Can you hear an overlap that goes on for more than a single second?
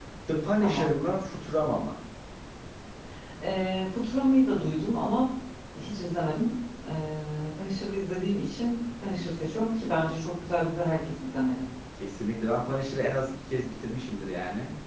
No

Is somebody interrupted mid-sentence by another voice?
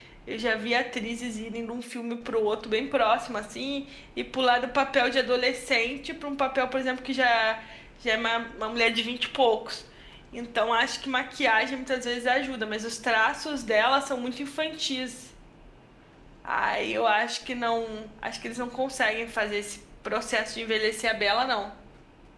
No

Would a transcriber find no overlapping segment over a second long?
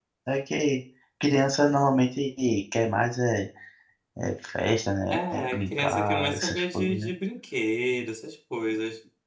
No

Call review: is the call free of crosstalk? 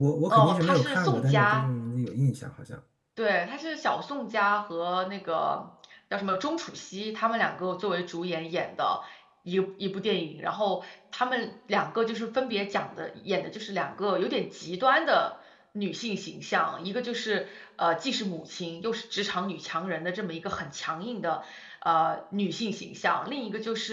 No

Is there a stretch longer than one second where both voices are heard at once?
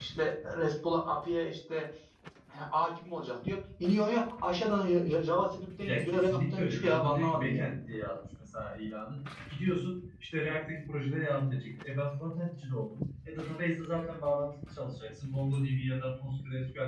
Yes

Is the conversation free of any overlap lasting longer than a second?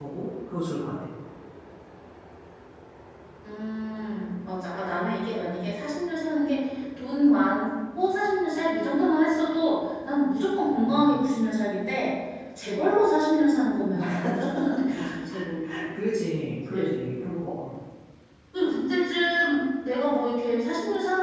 Yes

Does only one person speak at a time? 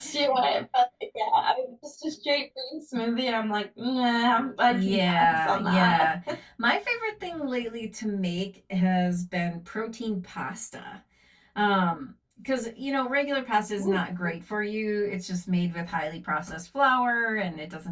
No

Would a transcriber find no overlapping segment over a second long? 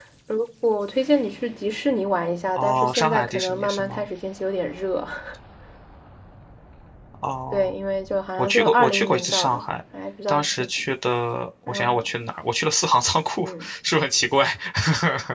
No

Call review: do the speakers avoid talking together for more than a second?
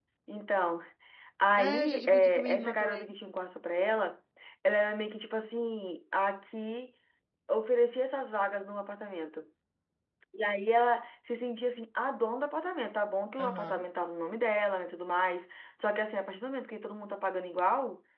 No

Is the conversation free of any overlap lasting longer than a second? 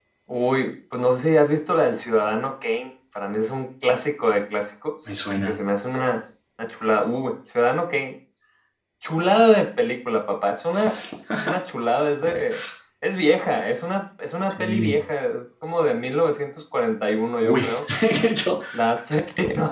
Yes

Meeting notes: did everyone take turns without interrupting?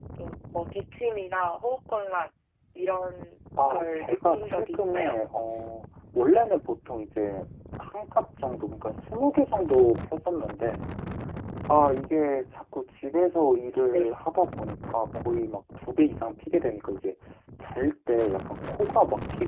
No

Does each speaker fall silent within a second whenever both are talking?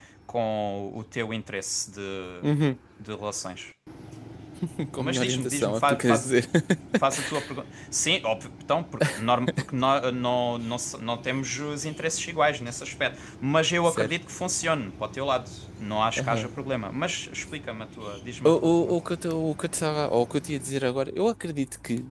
No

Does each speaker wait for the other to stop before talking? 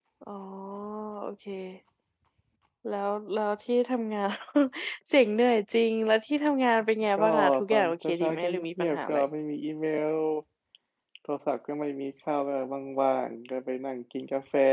No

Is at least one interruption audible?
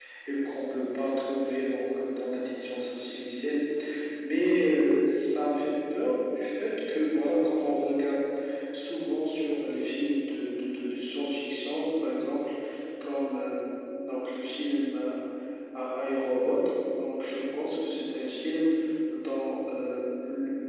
No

